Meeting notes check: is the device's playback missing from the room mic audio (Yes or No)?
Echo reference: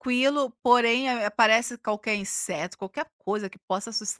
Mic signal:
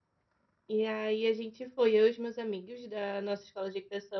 Yes